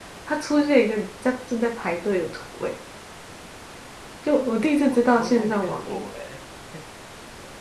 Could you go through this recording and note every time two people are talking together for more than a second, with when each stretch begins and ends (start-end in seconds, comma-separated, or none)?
4.9-6.1